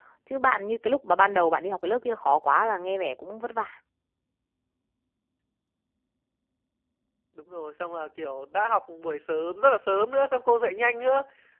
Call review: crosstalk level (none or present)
none